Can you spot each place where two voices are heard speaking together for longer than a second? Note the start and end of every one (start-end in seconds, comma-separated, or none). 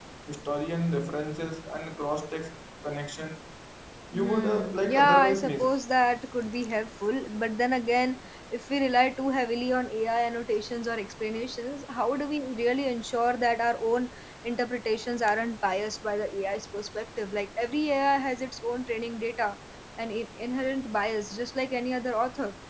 4.1-5.8